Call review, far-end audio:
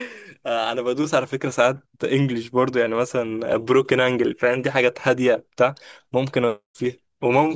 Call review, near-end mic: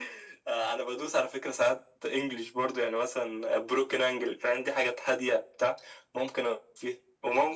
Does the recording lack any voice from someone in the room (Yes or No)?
Yes